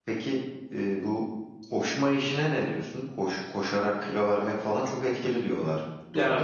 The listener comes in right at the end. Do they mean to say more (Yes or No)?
Yes